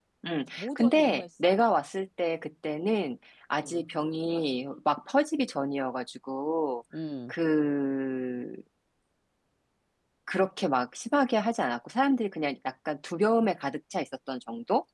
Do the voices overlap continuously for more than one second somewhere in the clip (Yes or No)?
Yes